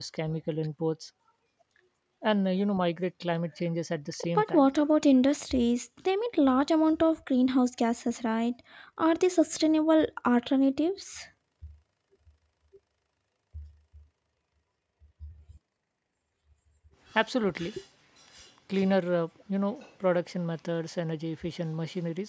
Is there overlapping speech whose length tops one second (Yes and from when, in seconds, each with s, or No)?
No